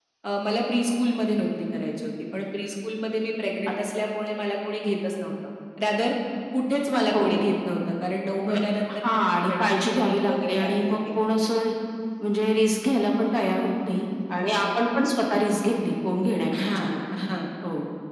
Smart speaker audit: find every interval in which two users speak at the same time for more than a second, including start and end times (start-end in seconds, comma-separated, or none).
9.1-11.0